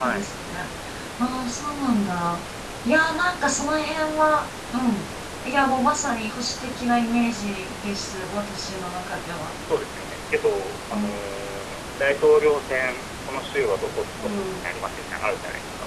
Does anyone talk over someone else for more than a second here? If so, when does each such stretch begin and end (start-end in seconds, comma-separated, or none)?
none